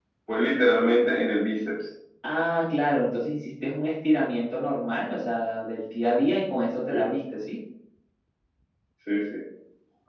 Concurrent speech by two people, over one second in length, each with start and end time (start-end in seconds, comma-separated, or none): none